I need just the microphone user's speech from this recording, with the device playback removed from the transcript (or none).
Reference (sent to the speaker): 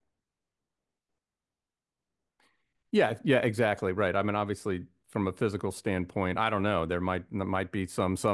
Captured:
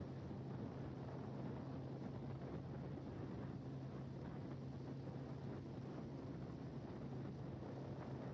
none